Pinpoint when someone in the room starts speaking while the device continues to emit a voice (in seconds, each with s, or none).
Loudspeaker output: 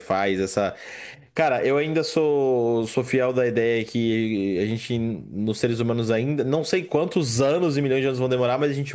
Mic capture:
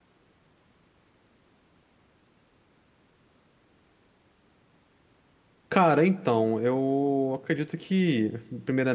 5.7 s